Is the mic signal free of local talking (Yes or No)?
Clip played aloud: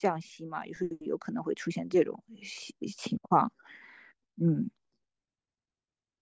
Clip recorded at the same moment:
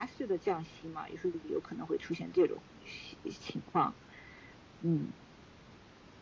Yes